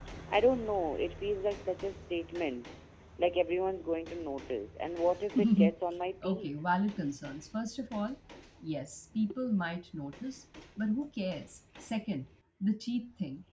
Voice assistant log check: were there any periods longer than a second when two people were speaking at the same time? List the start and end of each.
none

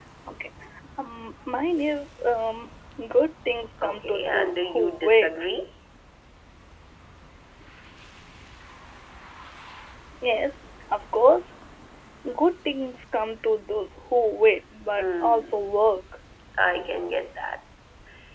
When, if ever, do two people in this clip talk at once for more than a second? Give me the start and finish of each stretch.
3.8-5.3

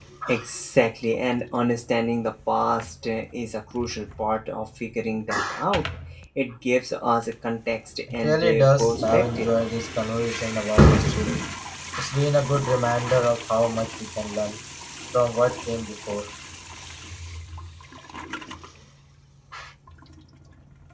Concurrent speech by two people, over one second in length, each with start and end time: 8.1-9.5

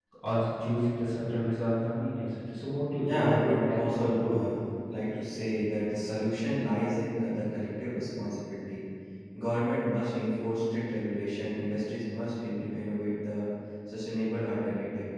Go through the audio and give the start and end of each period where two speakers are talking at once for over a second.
3.0-4.3

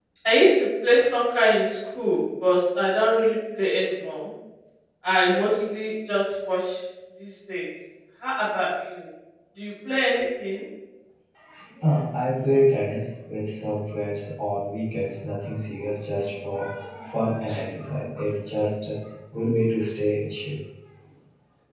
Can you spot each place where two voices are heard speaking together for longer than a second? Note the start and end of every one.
none

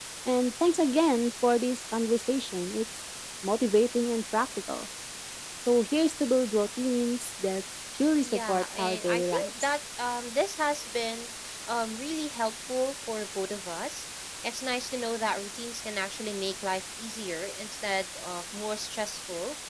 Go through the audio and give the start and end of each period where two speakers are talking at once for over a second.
8.3-9.8

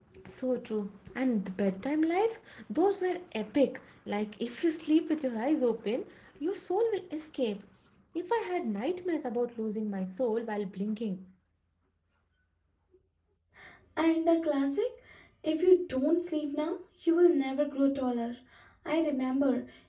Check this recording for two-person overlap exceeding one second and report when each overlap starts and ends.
none

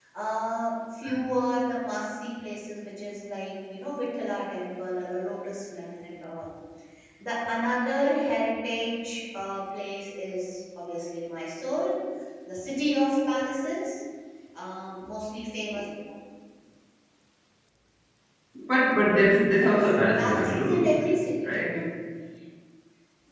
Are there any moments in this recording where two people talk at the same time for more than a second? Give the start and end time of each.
19.5-21.0

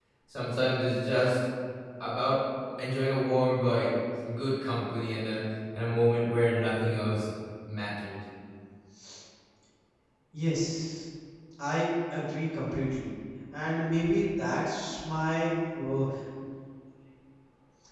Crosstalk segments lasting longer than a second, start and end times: none

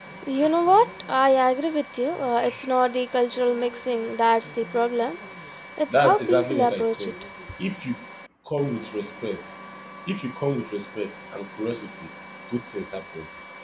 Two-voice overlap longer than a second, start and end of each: 5.9-7.1

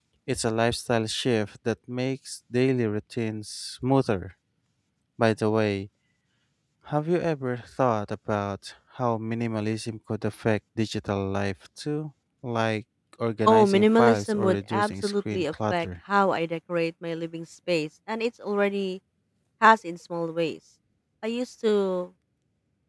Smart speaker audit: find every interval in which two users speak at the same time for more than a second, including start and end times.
13.5-15.9

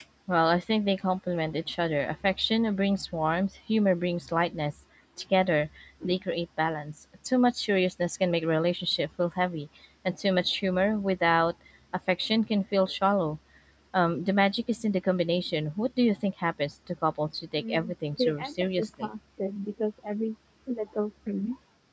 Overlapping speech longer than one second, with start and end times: 17.6-19.1

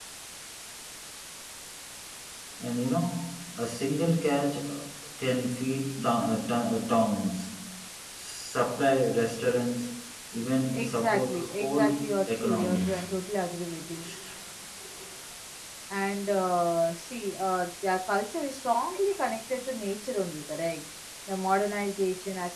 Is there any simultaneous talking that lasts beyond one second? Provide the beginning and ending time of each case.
10.7-13.2

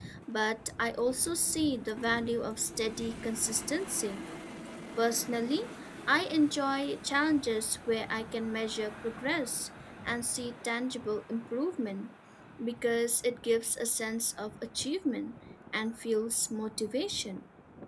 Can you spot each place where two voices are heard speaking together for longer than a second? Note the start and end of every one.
none

